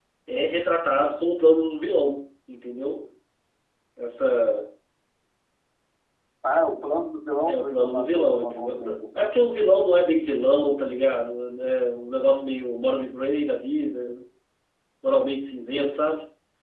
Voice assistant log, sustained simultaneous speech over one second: present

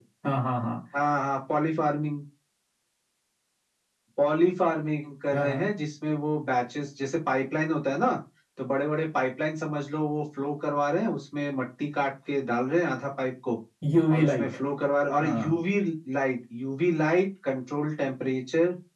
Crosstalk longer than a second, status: none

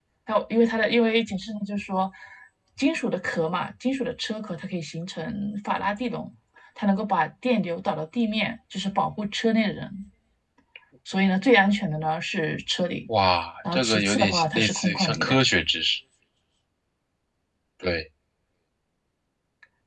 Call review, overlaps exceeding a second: present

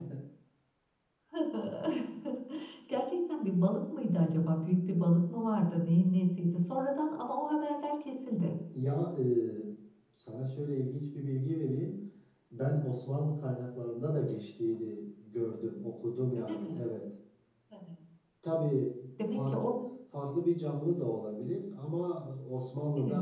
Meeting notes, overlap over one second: none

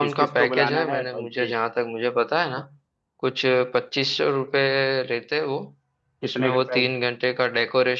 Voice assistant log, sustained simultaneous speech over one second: present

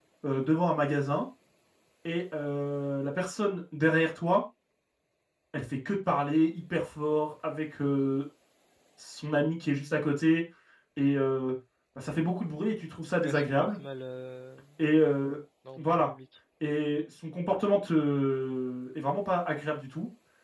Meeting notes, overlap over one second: none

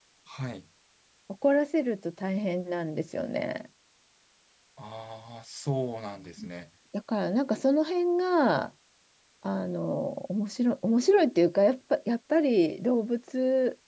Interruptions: none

